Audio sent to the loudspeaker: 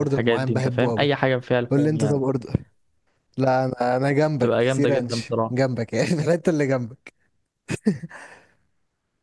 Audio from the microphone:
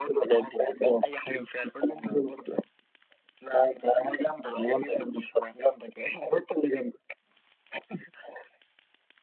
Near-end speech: none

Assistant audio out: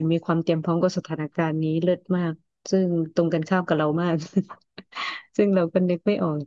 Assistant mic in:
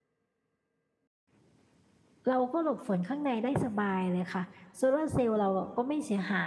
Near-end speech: present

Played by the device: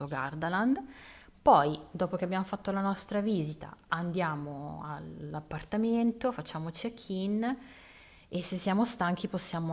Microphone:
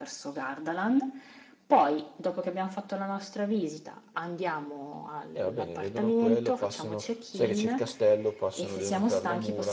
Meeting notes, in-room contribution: present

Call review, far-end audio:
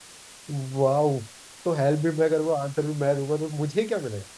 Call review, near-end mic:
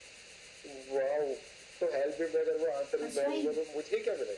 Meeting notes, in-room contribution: present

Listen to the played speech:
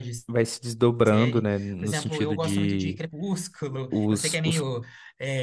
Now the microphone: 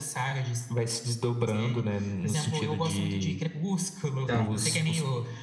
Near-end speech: present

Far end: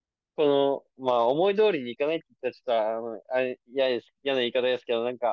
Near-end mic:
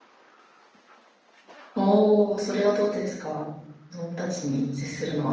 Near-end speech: present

